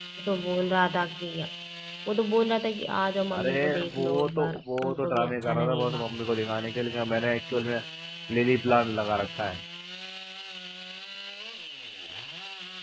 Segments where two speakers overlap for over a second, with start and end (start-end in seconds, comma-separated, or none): 3.3-6.0